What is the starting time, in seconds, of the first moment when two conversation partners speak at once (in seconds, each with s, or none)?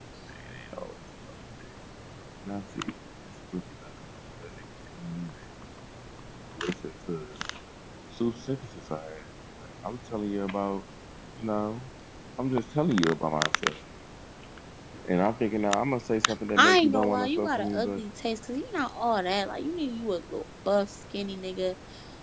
16.6 s